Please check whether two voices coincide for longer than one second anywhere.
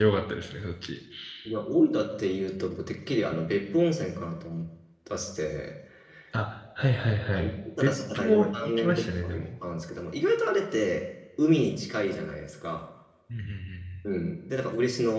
Yes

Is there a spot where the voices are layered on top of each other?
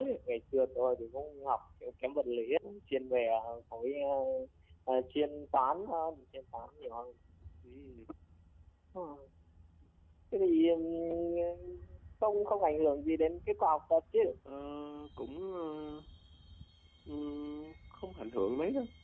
No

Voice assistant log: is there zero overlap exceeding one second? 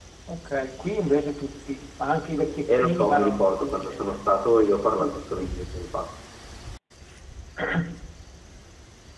No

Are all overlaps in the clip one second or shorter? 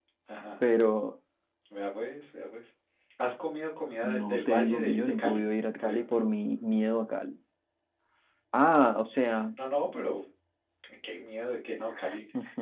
No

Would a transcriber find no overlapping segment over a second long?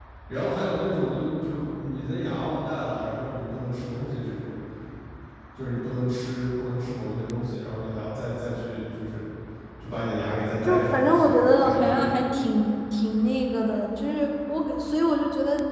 No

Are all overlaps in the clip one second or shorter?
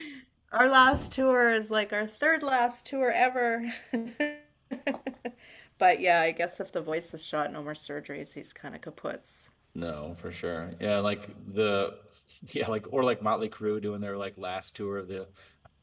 Yes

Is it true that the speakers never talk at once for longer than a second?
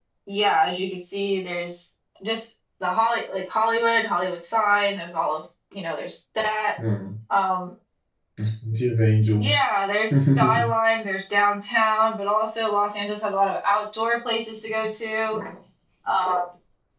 Yes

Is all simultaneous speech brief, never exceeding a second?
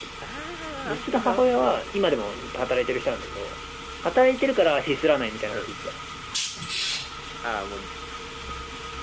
No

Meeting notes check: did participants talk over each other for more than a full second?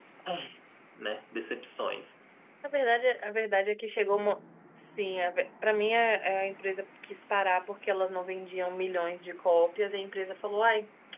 No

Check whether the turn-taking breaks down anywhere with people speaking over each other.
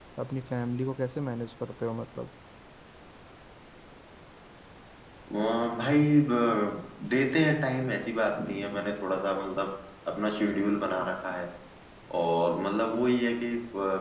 No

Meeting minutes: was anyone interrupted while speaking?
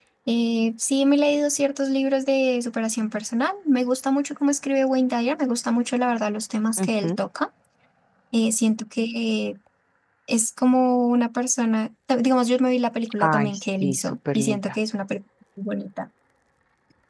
Yes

